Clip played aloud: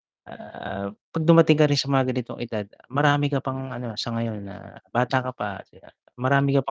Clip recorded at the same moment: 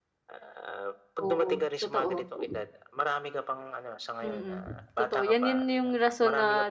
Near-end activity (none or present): present